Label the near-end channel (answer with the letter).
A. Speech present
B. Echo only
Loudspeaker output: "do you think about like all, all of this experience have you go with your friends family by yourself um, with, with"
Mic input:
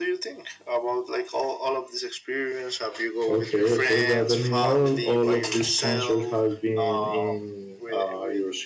A